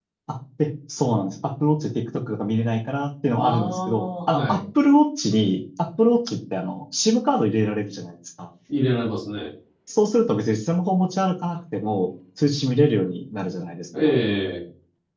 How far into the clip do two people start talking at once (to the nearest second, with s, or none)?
3 s